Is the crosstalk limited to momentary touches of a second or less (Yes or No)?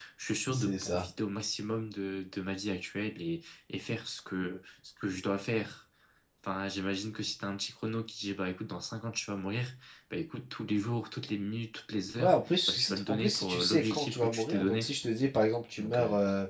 No